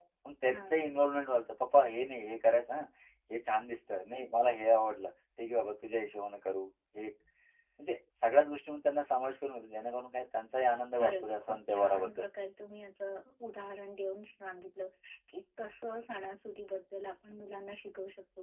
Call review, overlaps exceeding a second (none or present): present